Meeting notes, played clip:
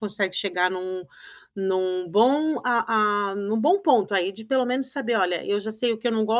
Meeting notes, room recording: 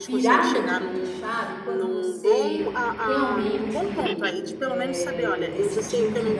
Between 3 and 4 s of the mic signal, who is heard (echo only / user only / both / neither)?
both